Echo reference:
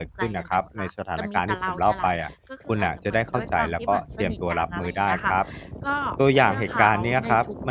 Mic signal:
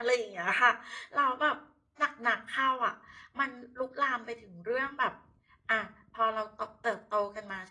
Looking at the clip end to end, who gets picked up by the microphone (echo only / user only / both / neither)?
user only